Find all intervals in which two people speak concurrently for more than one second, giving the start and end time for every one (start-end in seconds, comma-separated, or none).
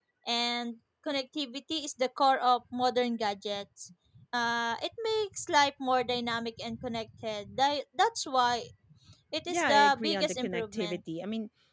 9.5-11.0